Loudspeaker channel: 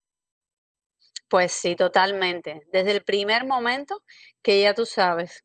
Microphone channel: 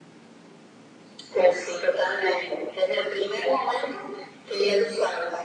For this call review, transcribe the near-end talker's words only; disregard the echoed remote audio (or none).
none